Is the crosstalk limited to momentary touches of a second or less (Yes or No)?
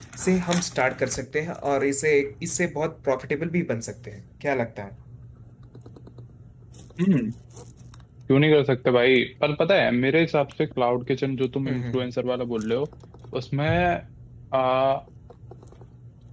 Yes